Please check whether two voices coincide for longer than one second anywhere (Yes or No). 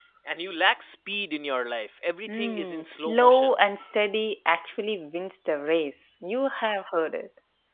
Yes